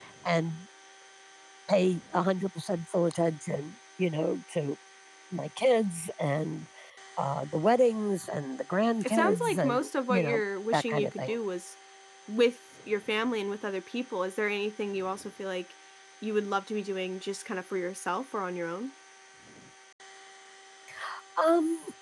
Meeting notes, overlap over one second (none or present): present